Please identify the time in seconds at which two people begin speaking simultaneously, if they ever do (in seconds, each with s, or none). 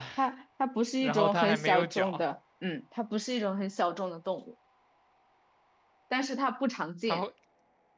1.0 s